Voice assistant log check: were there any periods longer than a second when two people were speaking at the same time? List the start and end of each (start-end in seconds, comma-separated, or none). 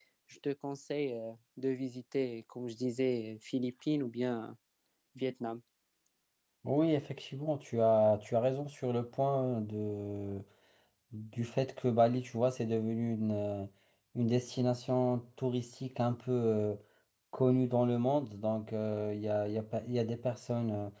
none